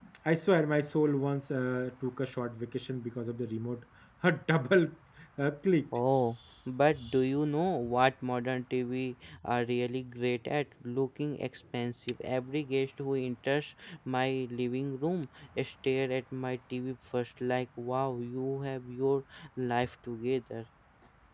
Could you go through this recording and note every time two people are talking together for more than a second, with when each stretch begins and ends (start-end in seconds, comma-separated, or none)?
none